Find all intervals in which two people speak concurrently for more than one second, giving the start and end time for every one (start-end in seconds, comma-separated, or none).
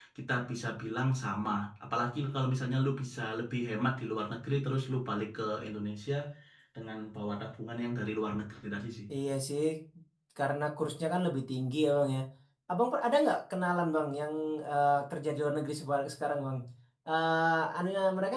none